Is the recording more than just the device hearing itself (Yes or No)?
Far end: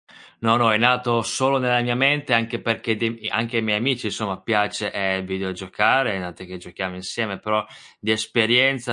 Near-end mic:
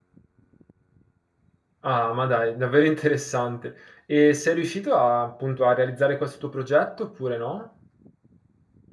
Yes